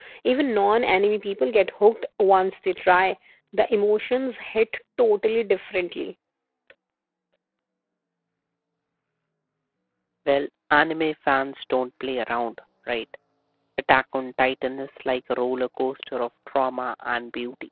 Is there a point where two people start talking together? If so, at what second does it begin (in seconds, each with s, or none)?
none